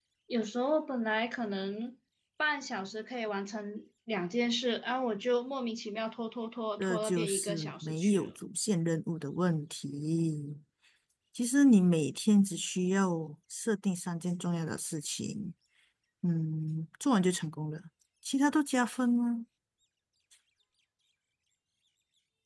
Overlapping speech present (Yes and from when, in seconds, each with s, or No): Yes, from 6.8 s